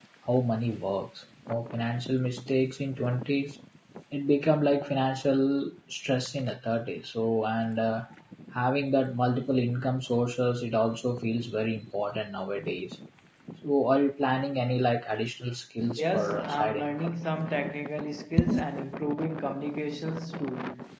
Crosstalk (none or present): present